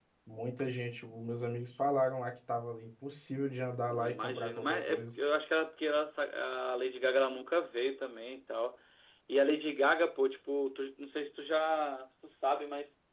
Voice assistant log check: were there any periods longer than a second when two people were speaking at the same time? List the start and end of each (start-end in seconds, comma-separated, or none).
3.9-5.1